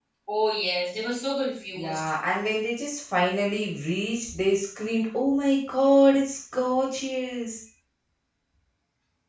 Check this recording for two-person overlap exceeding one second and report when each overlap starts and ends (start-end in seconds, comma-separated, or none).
none